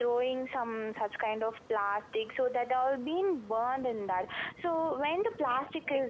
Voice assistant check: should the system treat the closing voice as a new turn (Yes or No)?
Yes